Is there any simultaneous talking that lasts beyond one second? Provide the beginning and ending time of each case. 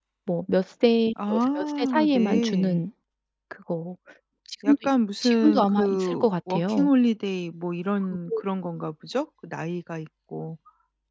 1.6-2.8, 5.2-6.9

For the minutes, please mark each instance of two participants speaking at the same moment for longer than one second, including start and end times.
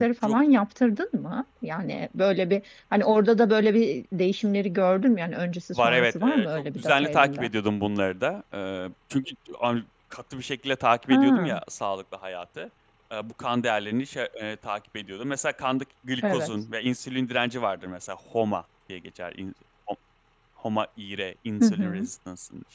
5.7-7.5

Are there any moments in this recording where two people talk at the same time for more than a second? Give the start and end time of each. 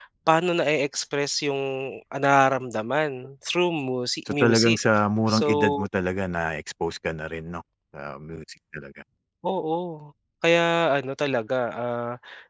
none

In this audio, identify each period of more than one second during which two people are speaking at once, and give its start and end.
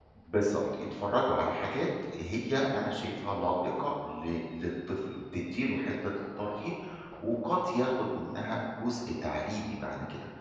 none

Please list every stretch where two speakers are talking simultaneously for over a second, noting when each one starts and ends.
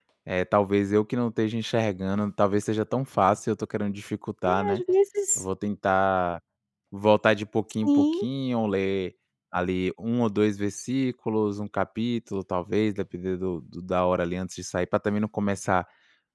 none

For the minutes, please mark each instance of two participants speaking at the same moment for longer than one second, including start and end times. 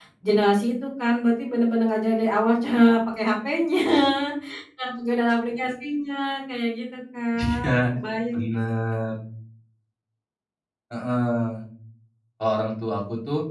none

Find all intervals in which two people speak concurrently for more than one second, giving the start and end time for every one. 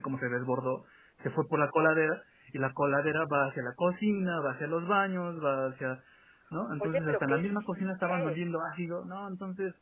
6.8-8.4

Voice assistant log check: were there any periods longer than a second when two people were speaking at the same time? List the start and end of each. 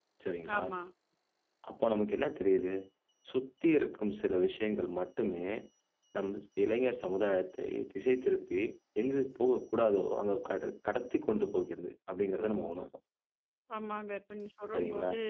none

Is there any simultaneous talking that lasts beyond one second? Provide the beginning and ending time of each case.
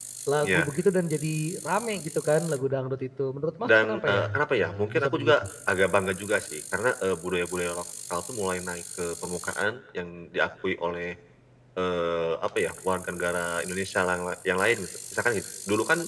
3.7-5.3

